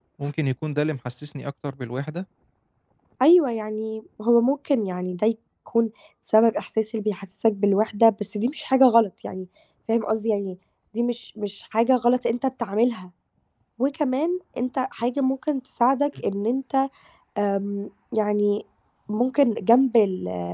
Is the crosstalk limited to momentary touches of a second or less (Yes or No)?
Yes